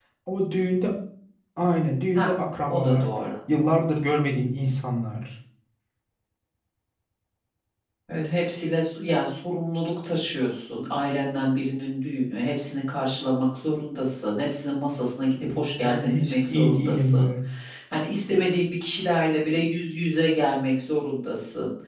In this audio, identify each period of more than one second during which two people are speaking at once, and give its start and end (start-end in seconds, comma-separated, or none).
15.4-17.3